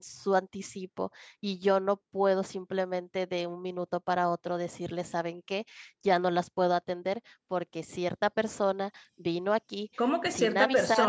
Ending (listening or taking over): taking over